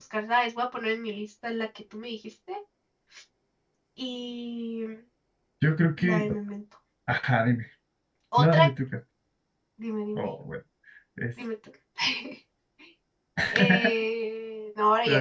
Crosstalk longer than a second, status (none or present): none